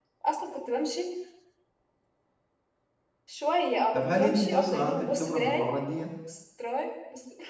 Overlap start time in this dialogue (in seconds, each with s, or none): 3.9 s